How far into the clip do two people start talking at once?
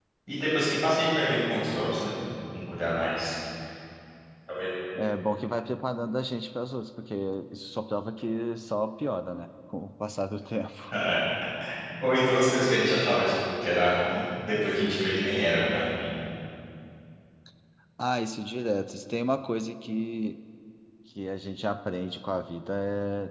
none

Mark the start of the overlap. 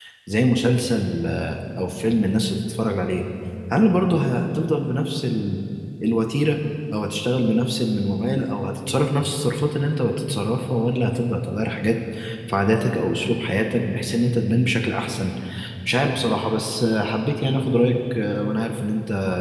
none

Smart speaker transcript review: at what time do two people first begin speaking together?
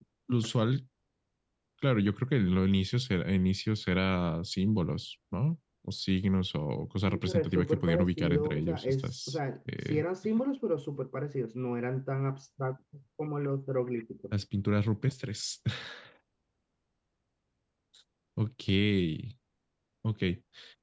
7.1 s

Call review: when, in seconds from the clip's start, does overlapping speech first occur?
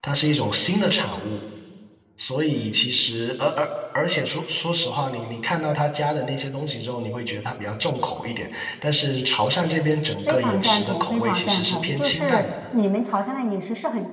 10.3 s

